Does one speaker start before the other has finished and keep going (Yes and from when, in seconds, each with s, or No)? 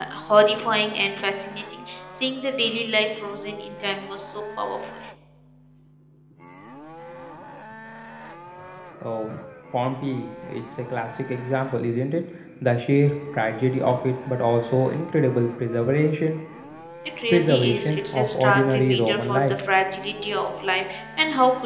Yes, from 17.3 s